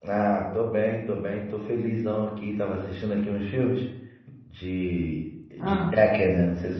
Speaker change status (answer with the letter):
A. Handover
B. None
B